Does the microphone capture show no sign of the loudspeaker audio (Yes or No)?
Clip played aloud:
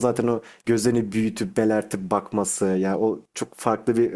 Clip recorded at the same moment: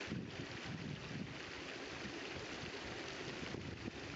Yes